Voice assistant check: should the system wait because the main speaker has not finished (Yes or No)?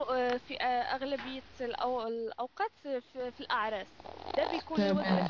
Yes